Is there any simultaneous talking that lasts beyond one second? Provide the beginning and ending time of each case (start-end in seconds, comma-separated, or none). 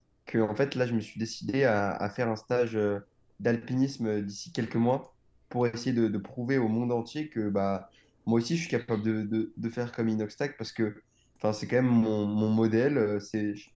none